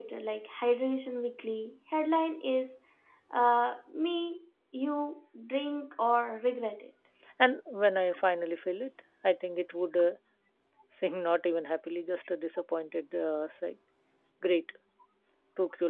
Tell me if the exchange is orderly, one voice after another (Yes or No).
Yes